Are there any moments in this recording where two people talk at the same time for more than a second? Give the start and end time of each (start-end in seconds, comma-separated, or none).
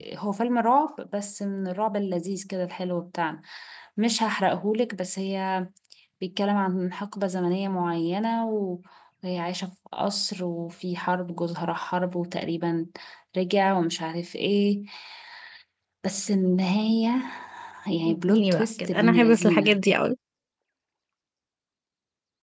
18.1-19.8